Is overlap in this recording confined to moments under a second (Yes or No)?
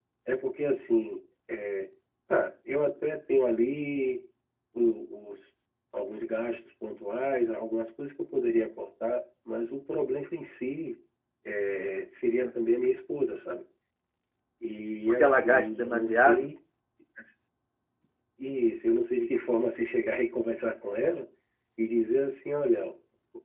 No